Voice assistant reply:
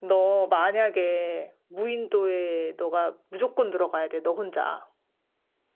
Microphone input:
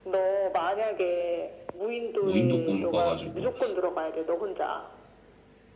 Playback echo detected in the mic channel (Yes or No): Yes